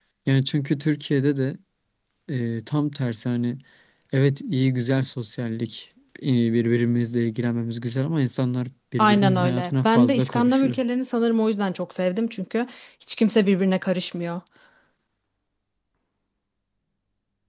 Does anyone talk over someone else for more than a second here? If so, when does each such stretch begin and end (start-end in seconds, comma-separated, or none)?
9.0-10.8